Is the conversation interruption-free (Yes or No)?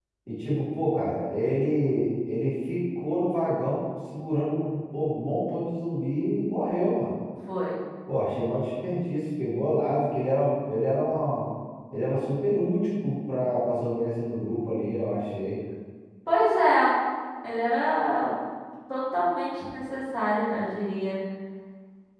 Yes